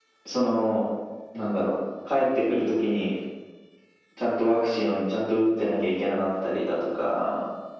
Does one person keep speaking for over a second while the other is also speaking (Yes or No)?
No